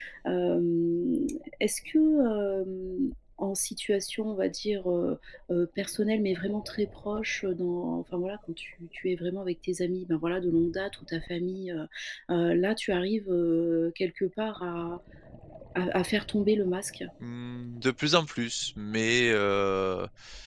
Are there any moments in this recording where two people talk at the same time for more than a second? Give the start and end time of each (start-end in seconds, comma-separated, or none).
none